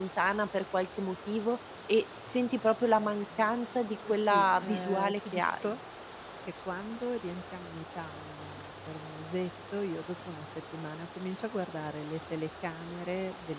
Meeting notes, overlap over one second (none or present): present